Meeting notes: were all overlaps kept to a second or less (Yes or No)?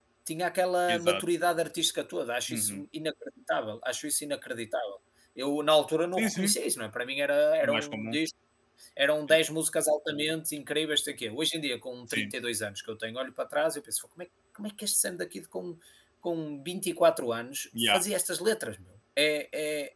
Yes